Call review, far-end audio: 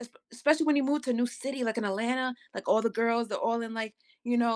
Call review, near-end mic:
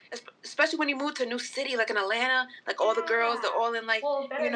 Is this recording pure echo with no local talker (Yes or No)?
No